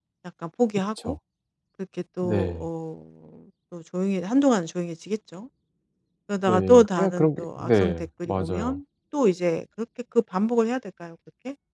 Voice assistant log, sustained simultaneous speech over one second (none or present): present